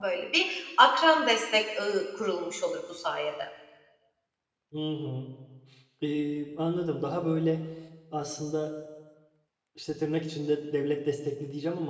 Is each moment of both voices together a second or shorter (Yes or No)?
Yes